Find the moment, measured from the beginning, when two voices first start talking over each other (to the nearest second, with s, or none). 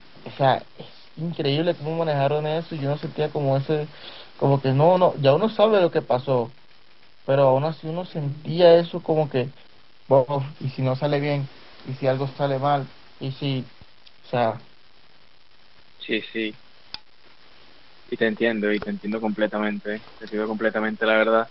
none